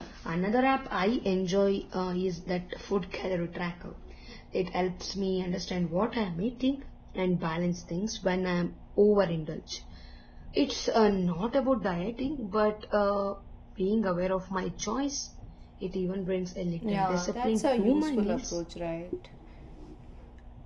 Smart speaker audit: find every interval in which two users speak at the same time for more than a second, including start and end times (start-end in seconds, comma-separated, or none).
16.8-18.6